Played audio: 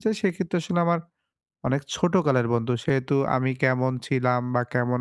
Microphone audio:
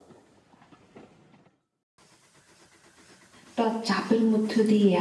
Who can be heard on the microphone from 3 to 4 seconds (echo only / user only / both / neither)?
user only